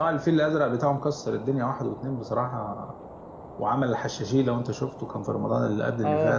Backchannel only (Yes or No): No